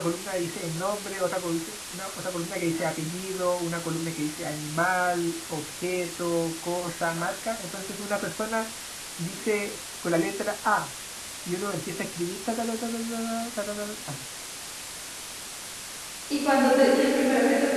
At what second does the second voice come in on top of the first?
none

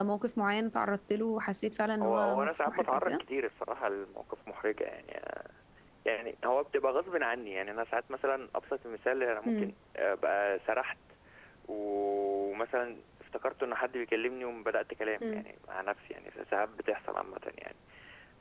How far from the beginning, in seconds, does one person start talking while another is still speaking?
2 s

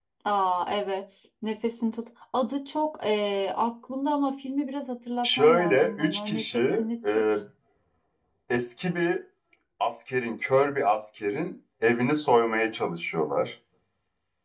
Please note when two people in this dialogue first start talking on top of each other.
5 s

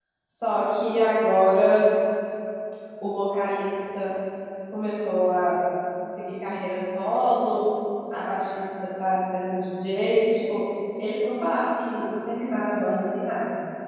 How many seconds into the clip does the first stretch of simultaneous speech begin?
none

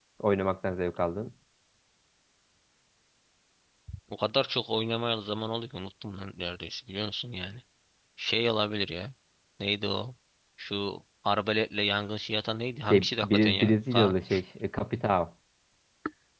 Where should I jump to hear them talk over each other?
13 s

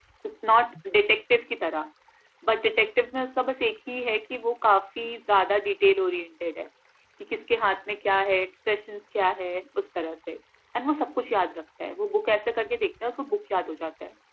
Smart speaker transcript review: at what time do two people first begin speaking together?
none

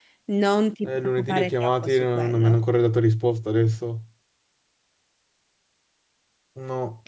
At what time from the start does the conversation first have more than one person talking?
1 s

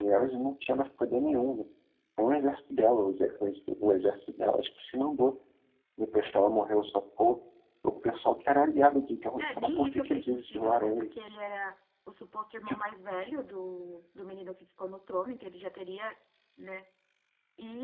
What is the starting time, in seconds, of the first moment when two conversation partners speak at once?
9 s

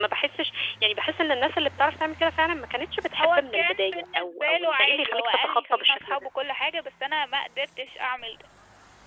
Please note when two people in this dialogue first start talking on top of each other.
3 s

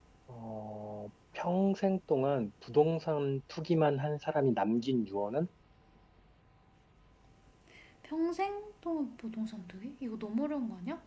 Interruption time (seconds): none

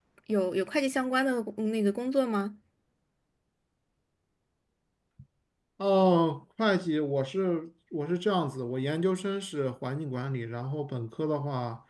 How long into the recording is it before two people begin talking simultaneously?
none

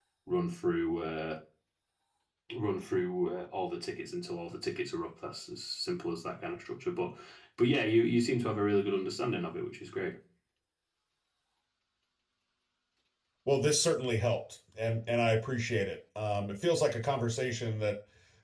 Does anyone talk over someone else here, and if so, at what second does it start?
none

